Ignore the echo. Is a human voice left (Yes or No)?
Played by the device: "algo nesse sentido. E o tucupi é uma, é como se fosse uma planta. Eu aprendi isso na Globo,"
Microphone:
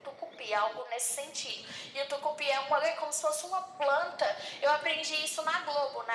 No